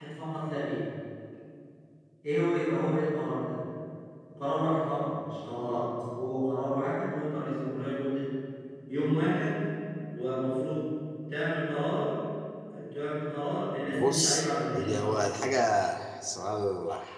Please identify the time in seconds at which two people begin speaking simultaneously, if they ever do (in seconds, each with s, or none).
13.9 s